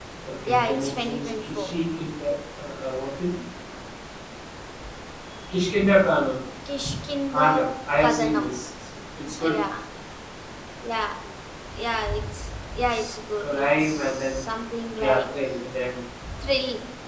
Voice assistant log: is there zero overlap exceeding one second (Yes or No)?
No